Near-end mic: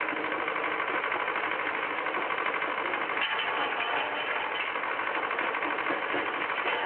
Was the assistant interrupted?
No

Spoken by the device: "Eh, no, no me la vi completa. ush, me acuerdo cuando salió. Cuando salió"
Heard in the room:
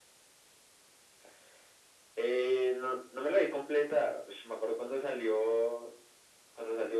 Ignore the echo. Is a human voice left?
No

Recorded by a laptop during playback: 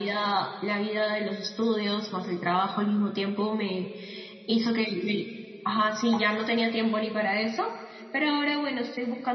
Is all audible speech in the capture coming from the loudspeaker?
Yes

